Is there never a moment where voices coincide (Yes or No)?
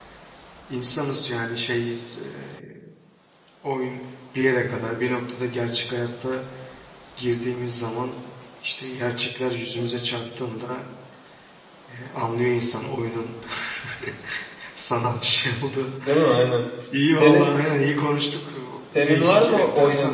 No